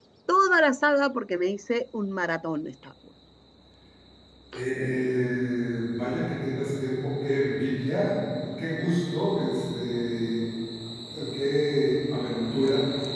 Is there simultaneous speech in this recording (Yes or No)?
No